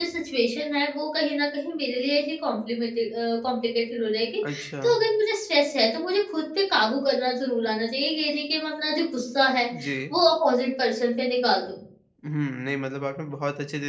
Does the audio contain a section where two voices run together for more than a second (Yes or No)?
No